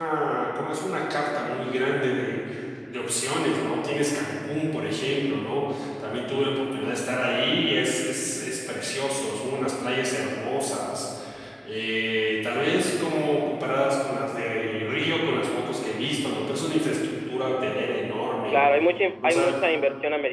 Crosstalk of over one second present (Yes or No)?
No